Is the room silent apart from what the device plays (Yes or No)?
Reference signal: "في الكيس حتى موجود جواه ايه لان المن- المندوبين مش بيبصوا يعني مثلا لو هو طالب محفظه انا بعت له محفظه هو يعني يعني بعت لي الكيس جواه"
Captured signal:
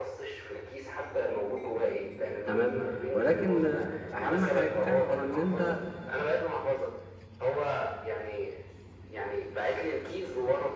No